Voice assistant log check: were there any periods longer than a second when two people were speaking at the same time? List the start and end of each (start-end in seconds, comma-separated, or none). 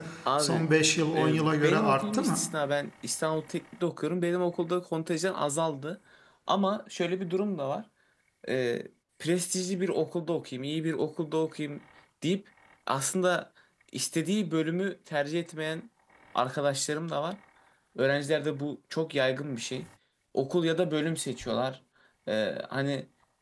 1.2-2.4